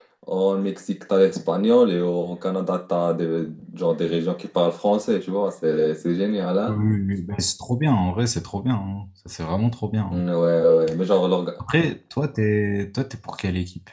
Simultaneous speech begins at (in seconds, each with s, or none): none